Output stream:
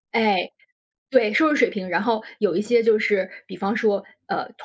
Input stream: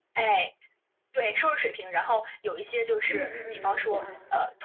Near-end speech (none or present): present